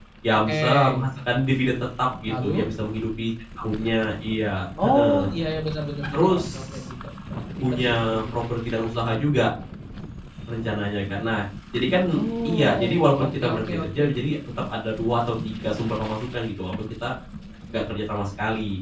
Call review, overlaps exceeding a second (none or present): present